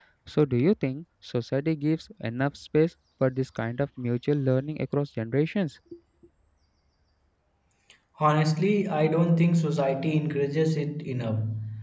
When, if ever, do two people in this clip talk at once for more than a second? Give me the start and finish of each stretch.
none

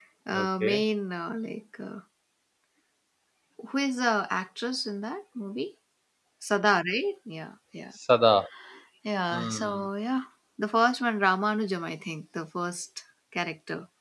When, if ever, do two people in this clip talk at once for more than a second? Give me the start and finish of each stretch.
none

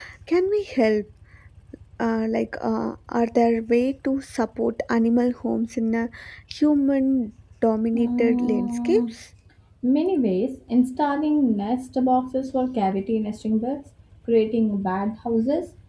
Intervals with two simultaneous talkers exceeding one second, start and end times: 7.9-9.1

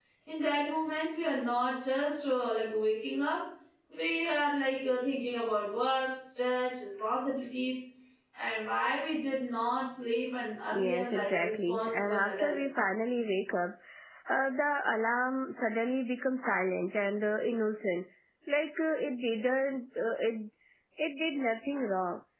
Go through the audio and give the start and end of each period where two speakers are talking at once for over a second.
10.8-12.6

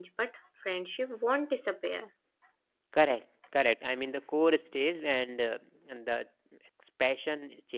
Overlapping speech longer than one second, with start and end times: none

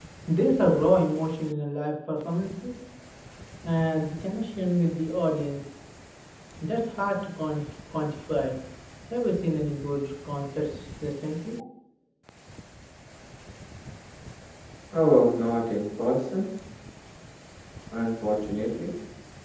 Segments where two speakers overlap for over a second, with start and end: none

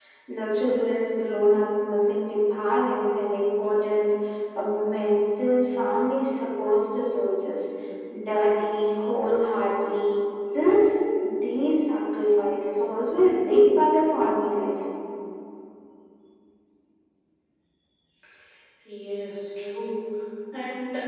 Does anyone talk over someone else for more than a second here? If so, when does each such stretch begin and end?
none

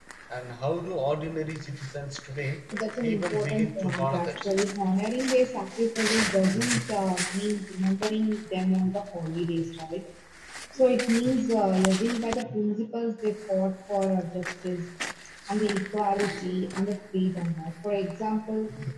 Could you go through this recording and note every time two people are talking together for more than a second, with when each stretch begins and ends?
3.0-4.5

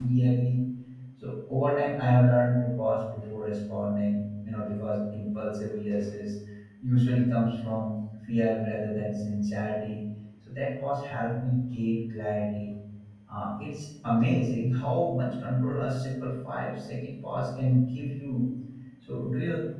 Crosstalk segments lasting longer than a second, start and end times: none

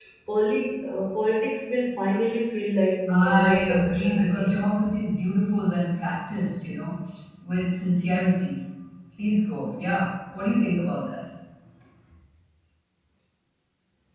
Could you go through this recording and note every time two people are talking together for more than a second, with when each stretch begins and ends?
3.1-4.5

